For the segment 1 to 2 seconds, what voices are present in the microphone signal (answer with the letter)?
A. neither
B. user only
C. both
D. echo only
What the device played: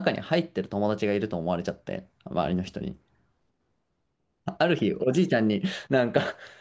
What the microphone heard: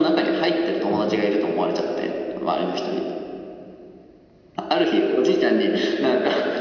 C